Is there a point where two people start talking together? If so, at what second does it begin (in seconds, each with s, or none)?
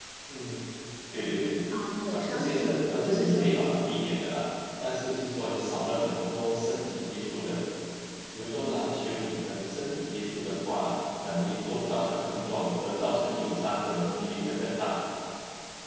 2.1 s